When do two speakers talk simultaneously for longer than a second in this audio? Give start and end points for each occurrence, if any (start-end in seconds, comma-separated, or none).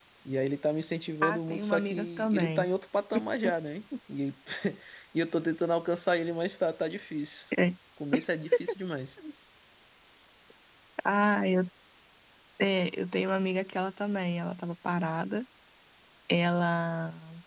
1.2-2.7